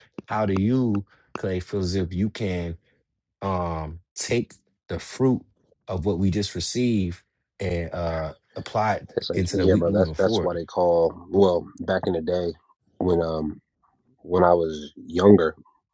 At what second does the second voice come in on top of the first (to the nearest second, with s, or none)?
9 s